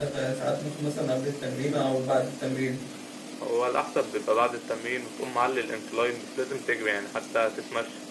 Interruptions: none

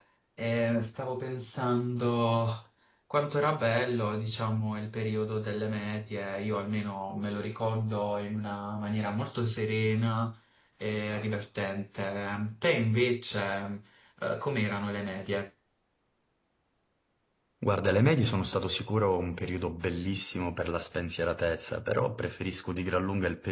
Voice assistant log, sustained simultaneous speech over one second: none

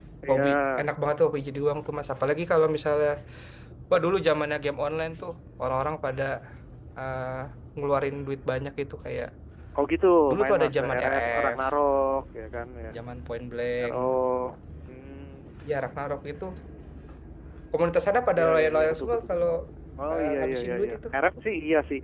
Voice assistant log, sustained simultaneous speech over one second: present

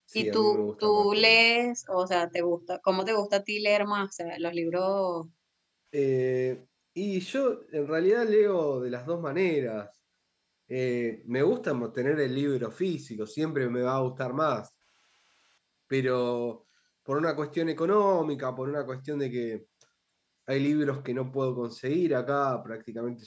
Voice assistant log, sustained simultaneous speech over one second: present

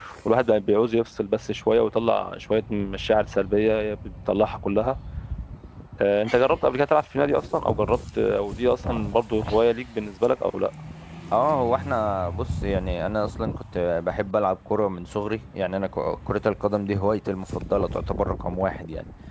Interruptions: none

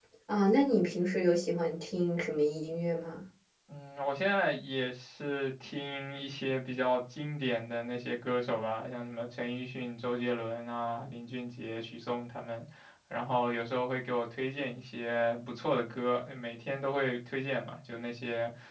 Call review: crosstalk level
none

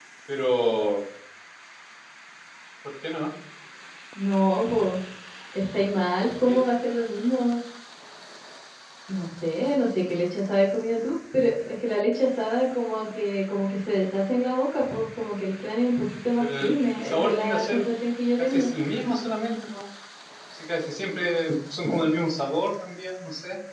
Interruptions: present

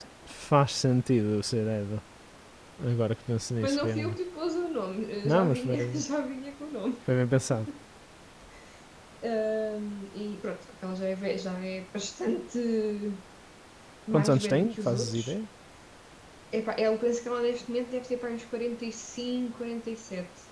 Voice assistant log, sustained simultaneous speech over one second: present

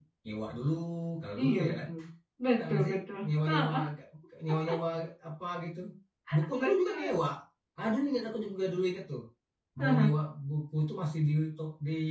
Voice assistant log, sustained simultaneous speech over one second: present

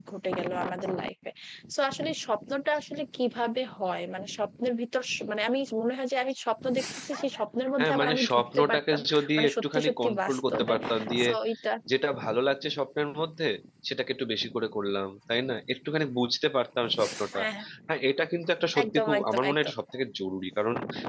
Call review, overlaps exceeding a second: present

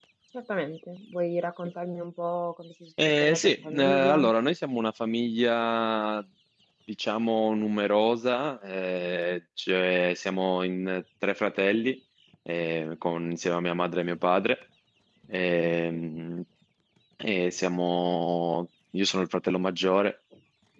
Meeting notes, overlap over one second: present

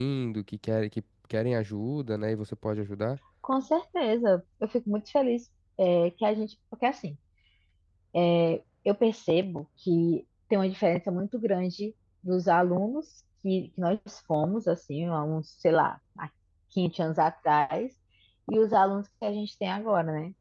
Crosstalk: none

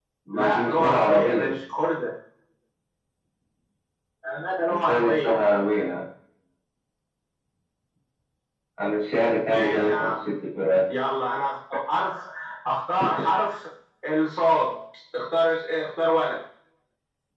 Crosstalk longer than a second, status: present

